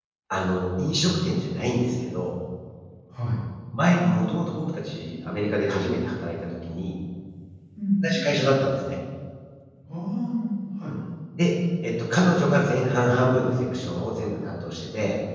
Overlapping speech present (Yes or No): No